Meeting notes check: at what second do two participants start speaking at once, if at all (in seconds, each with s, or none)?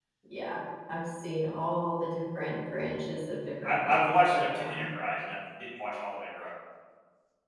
3.6 s